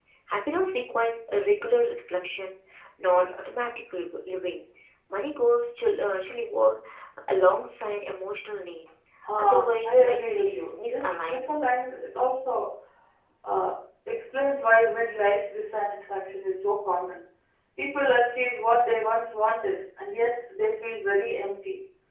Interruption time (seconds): 9 s

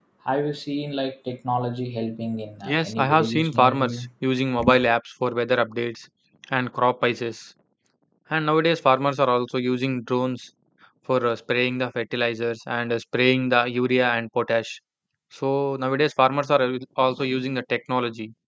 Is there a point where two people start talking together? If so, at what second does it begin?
3 s

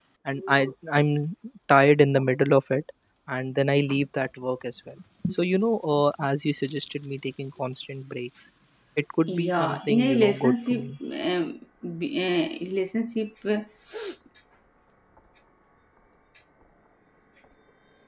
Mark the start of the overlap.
9 s

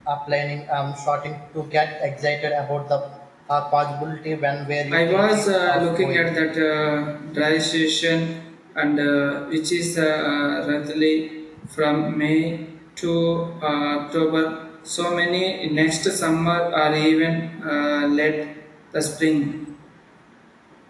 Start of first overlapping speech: 5 s

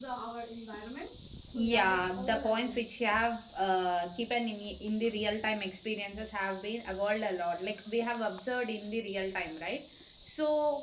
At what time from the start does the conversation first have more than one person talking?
2 s

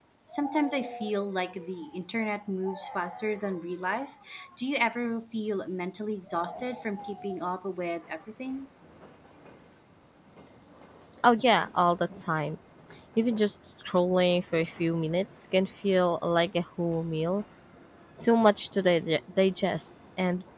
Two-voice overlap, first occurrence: none

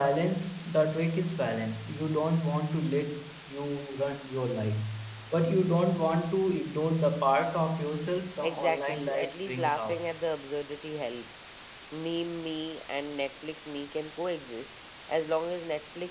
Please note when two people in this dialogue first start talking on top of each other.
8 s

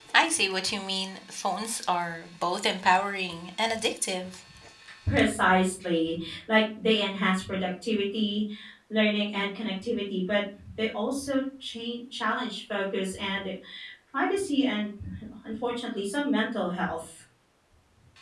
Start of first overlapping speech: none

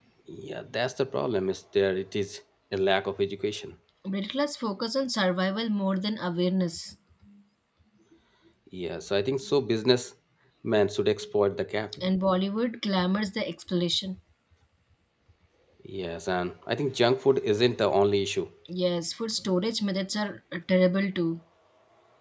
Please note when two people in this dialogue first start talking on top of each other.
none

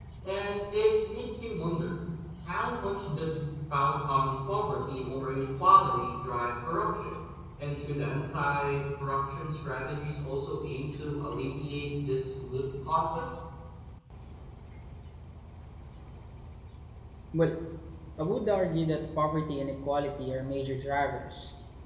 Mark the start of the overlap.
none

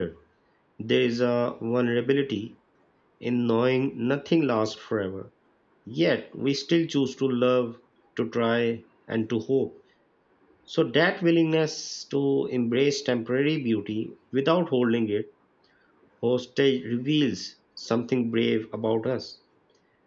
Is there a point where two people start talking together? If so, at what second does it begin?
none

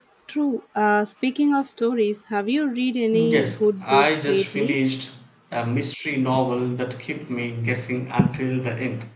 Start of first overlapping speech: 3 s

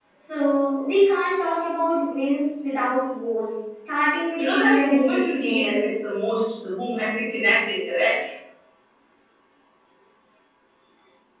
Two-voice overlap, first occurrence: 4 s

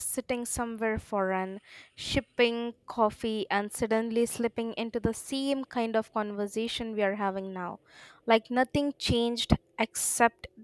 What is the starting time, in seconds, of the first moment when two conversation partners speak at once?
none

